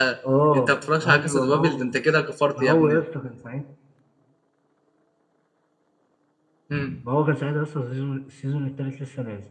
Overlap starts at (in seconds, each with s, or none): 0.6 s